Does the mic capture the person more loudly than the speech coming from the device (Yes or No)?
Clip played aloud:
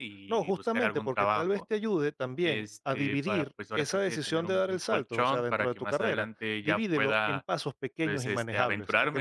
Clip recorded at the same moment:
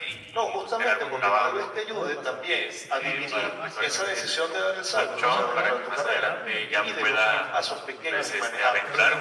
No